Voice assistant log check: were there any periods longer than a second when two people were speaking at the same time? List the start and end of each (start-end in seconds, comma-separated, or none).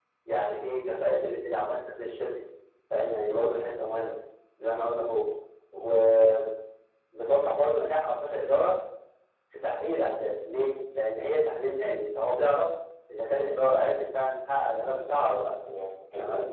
none